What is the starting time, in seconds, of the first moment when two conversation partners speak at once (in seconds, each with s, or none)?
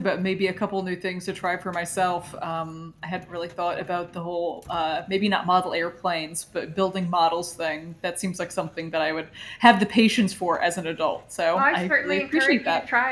11.5 s